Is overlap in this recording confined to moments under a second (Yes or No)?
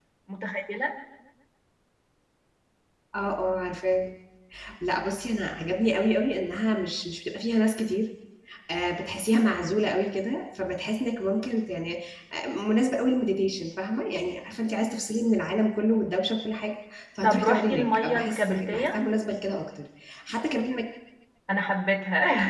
No